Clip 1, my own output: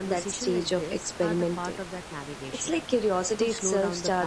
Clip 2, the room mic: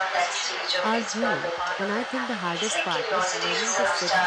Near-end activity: present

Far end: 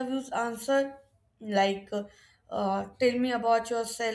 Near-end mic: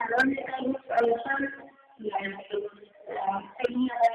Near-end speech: none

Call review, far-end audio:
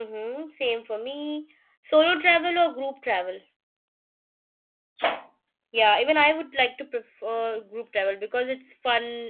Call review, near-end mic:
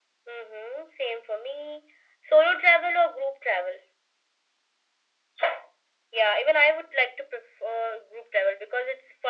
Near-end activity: none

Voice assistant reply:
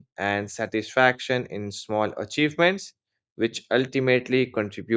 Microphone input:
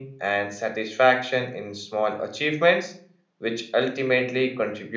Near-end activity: none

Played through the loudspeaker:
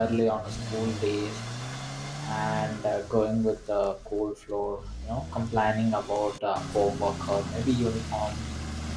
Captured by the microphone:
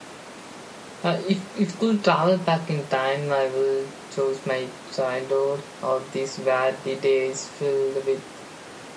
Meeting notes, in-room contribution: present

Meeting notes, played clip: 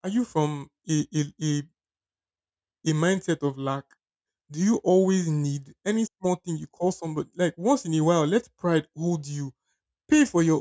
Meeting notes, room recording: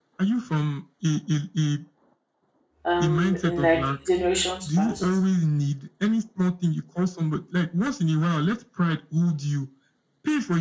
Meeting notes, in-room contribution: present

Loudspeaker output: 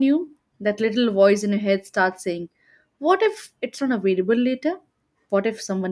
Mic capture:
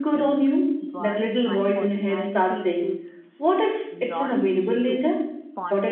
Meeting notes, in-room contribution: present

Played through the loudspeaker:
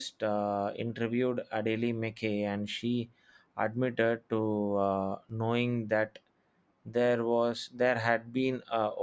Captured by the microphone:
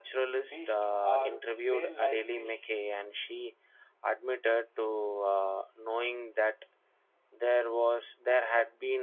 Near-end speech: present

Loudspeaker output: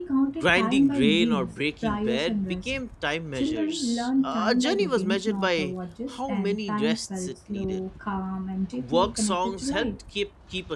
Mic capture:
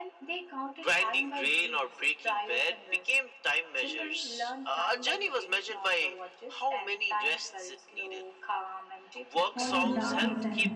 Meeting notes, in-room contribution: present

